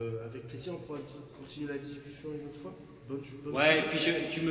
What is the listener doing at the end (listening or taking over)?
taking over